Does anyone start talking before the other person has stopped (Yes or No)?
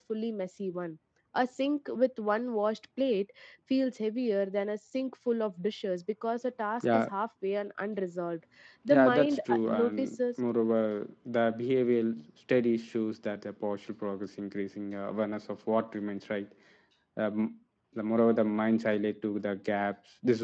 Yes